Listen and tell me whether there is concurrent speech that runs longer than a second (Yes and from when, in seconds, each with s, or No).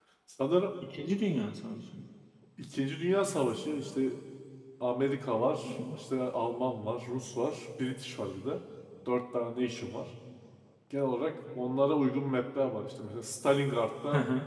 No